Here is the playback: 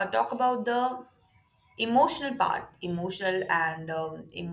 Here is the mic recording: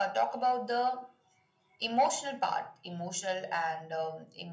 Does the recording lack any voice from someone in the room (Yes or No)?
Yes